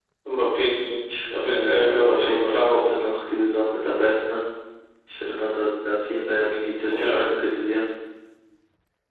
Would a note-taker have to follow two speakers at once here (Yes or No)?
Yes